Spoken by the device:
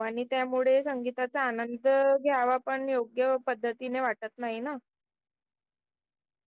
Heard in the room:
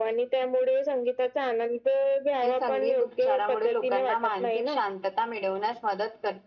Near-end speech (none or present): present